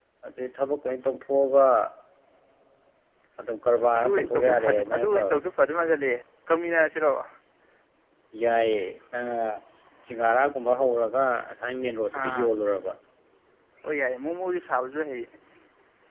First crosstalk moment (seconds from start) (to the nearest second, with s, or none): 4 s